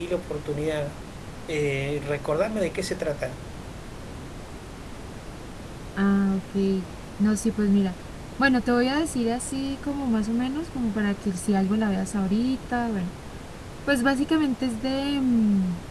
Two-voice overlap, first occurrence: none

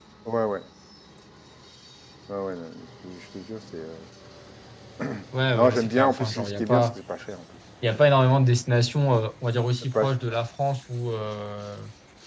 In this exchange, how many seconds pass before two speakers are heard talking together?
6 s

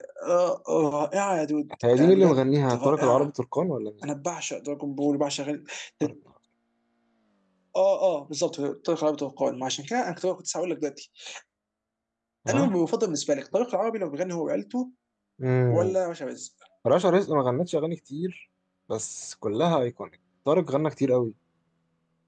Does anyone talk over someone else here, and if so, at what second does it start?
2 s

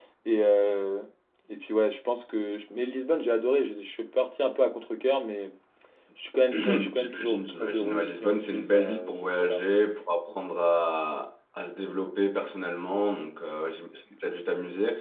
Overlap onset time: 7 s

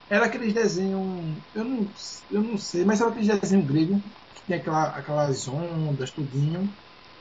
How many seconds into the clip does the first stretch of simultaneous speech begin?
none

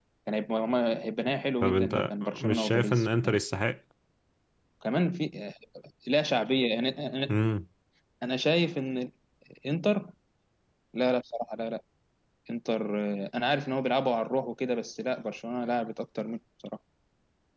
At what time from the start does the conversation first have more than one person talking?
2 s

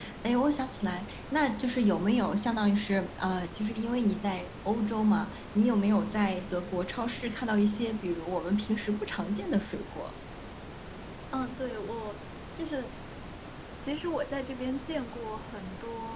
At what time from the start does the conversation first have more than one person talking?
none

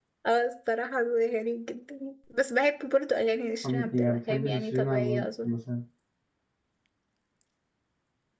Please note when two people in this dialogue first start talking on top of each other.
4 s

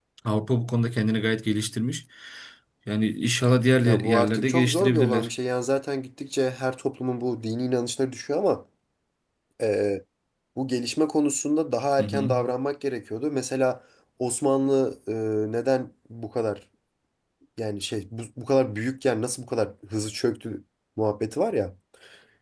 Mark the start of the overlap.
4 s

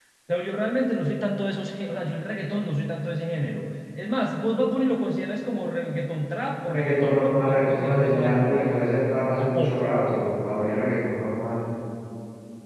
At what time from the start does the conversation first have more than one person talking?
7 s

